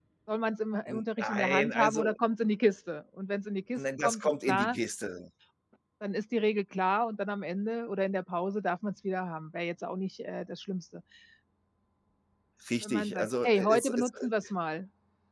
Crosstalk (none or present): present